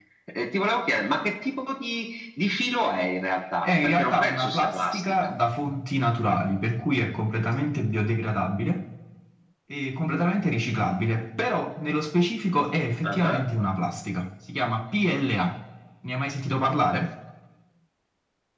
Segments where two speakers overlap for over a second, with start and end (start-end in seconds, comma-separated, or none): 3.6-5.3